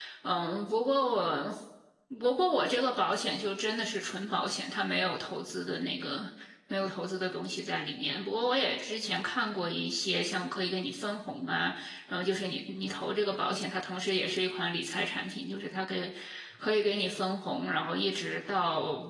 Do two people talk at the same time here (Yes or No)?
No